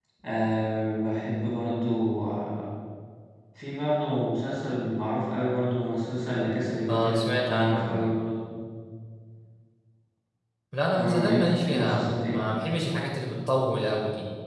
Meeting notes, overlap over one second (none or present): present